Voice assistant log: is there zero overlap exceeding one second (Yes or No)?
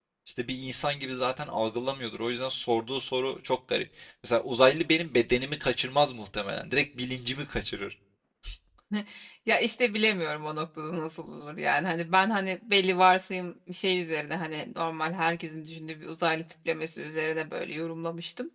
Yes